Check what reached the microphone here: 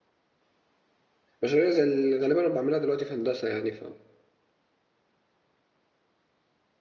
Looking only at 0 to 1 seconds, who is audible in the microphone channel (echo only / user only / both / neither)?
neither